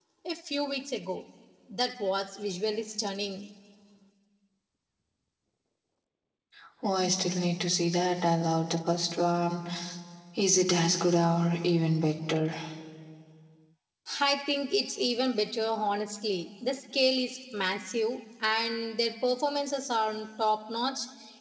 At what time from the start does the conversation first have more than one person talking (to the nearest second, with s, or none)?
none